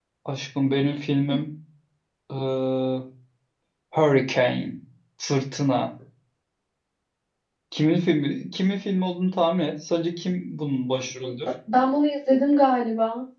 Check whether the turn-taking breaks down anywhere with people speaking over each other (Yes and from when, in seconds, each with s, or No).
No